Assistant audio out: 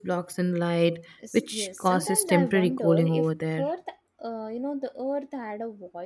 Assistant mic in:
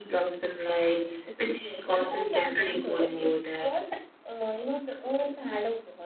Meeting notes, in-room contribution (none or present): none